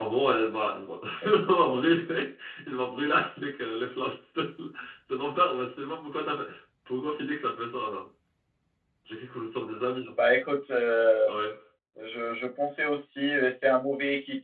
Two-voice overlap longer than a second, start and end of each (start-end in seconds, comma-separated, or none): none